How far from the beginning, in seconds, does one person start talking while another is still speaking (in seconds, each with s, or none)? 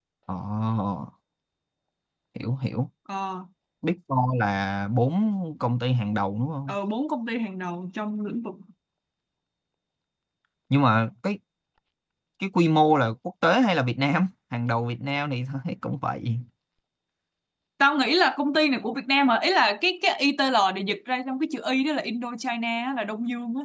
none